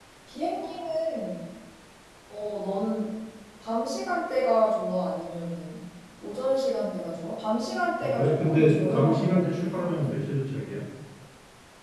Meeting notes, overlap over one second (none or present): present